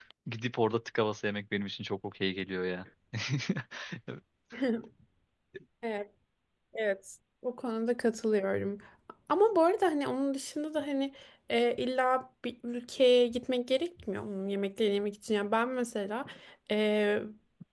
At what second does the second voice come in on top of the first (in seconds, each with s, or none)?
none